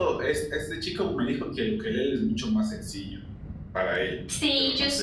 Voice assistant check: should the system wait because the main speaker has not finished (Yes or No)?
No